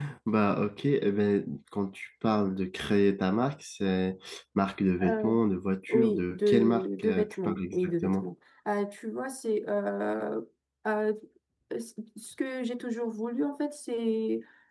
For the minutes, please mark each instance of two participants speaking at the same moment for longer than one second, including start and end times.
5.9-8.3

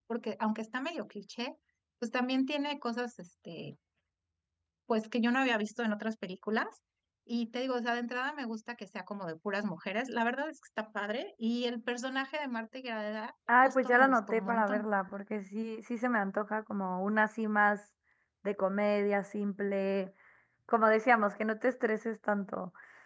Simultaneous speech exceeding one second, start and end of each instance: 13.6-14.9

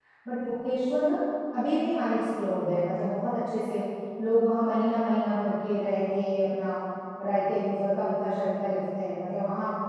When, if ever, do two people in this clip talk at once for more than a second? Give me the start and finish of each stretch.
none

